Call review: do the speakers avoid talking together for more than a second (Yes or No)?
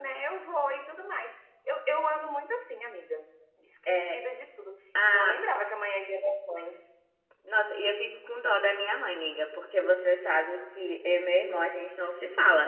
Yes